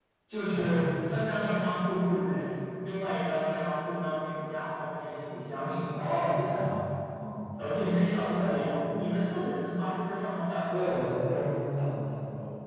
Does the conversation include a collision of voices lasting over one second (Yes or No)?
No